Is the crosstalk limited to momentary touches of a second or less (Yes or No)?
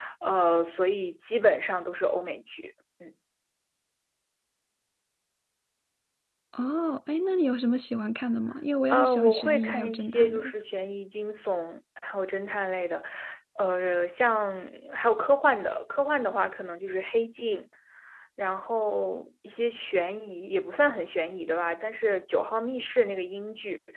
No